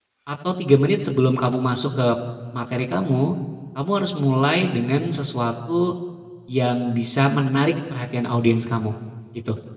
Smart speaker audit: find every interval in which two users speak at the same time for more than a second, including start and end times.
none

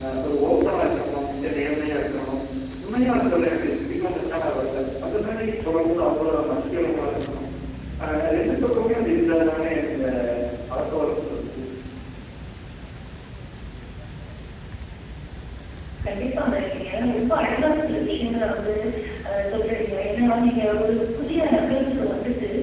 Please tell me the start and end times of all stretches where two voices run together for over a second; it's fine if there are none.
none

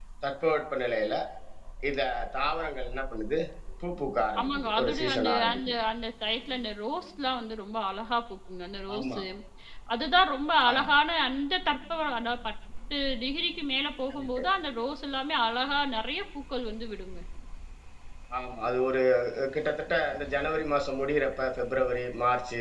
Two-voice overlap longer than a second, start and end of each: 4.4-5.7

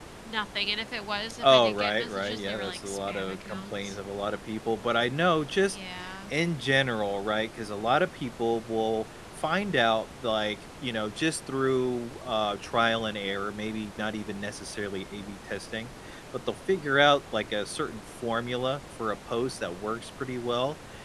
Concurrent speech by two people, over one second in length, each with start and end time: 1.4-4.0

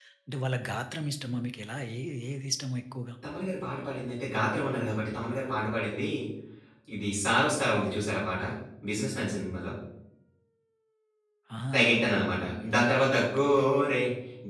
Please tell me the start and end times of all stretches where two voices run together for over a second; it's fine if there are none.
none

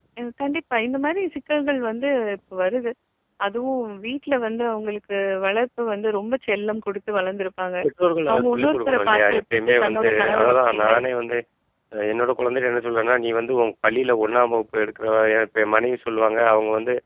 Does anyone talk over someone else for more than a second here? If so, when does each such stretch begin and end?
8.3-10.9

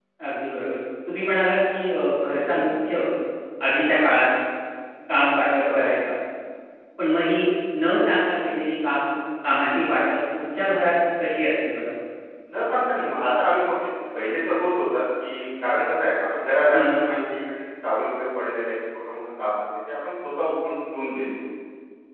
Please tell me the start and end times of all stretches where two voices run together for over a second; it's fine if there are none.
none

